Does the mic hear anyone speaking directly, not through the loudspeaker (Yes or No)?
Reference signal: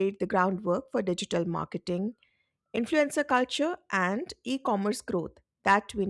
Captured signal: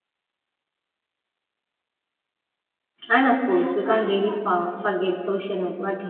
Yes